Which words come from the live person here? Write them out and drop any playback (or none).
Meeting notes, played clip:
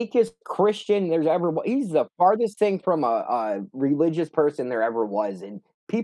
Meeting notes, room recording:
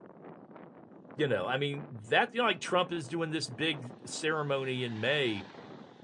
you know, I mean, that you know, like, Trump is doing this big ceremony in May,